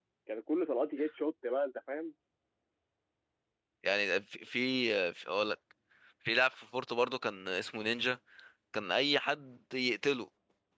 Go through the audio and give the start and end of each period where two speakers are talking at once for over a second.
none

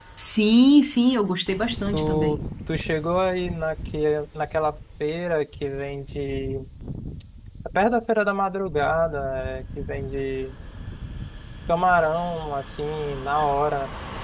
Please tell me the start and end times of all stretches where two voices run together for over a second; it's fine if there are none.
none

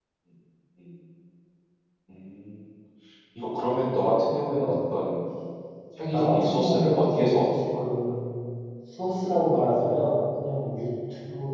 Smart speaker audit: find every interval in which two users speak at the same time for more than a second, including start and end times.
6.1-7.9

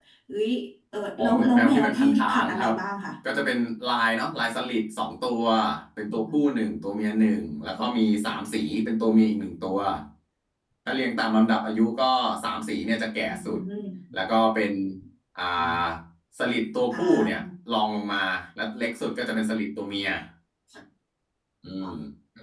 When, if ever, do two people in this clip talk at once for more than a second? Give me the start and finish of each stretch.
1.2-2.7

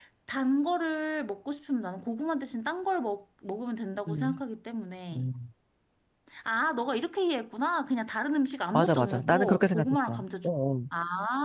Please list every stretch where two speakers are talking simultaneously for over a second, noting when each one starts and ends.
8.7-10.5

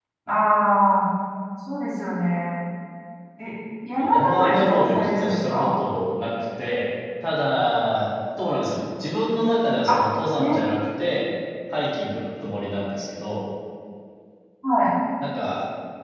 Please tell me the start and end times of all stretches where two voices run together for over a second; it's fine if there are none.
4.0-5.7

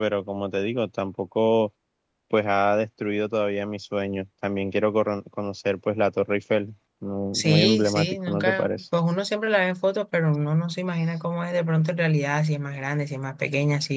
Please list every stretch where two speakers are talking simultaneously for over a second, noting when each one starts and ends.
7.3-8.7

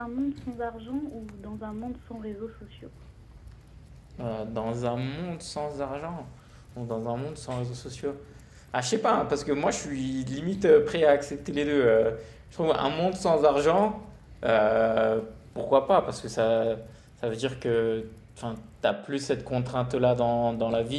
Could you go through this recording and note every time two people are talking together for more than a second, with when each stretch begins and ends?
none

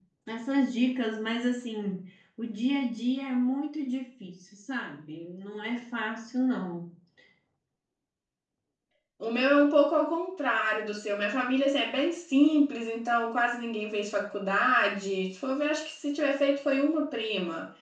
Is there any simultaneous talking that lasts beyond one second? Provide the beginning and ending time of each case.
none

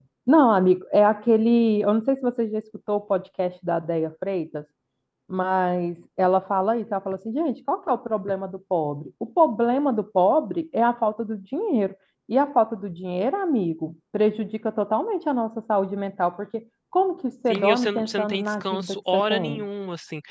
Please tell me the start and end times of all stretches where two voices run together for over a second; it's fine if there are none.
17.5-19.6

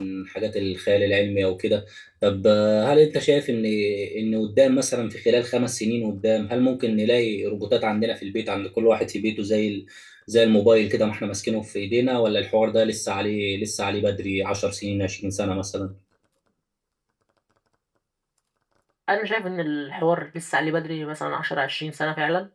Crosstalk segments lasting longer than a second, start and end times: none

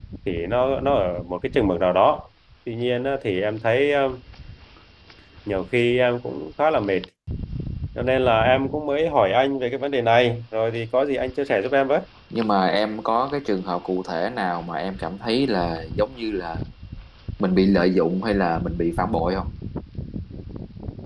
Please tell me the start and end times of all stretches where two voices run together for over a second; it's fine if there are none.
none

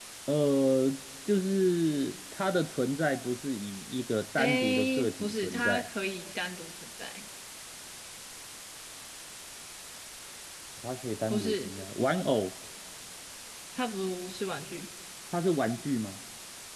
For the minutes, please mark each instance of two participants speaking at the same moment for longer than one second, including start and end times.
4.4-5.8

